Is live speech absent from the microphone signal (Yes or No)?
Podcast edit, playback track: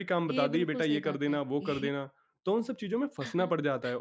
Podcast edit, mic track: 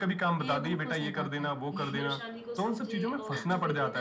No